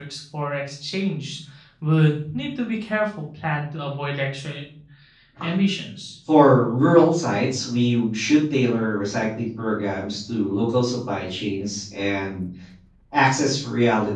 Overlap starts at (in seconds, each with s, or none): none